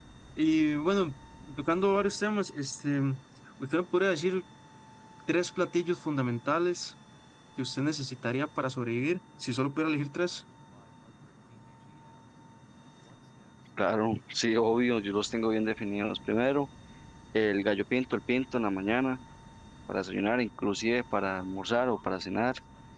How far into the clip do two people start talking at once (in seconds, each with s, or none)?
none